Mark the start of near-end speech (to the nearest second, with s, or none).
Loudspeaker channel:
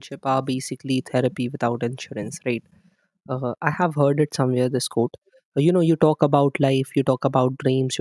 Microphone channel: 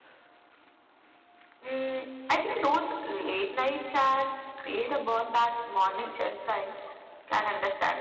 2 s